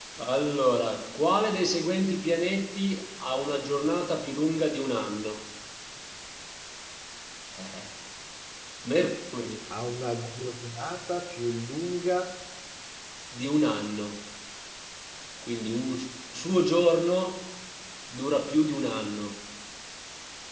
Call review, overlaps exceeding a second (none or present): none